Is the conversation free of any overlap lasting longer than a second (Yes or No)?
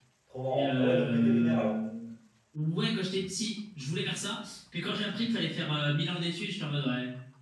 No